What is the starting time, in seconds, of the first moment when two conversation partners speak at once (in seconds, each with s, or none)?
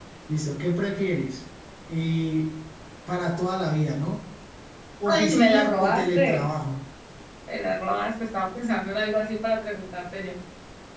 5.0 s